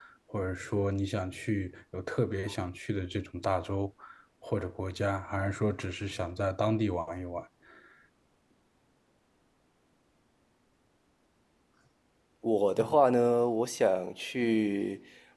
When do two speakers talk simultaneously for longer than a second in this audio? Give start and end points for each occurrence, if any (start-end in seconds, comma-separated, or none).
none